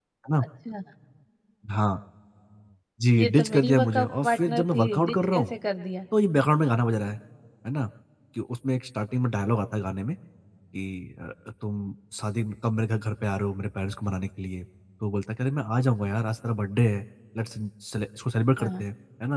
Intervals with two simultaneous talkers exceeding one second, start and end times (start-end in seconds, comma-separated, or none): 3.2-5.5